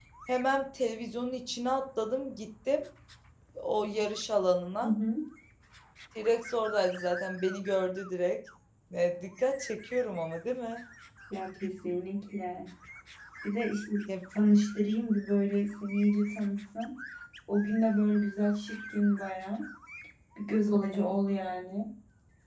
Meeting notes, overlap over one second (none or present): none